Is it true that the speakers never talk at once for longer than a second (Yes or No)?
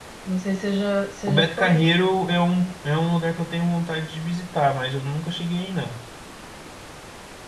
Yes